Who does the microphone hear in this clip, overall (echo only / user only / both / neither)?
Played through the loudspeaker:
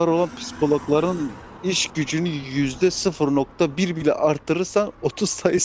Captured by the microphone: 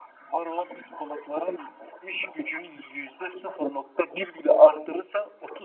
echo only